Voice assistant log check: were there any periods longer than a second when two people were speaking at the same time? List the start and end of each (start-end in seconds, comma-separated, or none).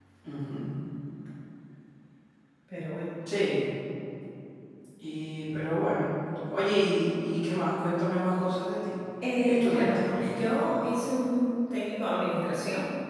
9.4-10.6